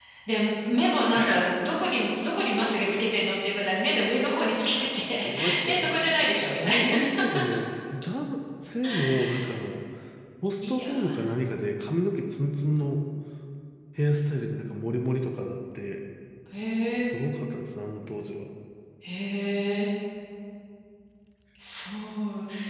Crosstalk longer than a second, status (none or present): present